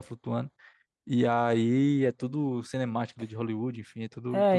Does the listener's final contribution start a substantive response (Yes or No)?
Yes